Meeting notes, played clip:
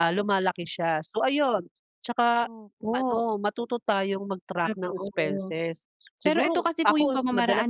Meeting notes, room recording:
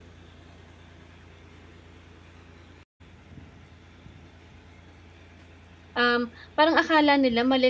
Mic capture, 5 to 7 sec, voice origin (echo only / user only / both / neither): user only